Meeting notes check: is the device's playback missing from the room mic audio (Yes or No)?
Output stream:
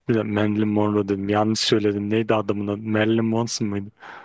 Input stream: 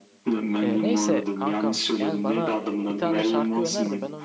No